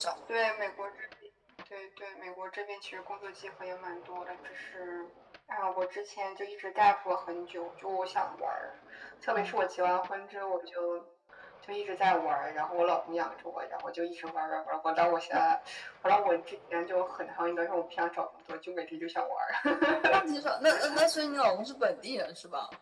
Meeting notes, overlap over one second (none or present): none